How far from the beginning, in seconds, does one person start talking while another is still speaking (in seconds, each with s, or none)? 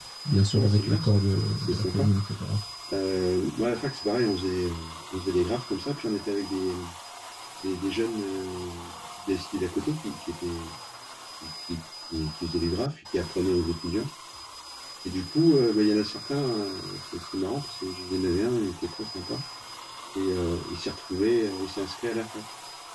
0.6 s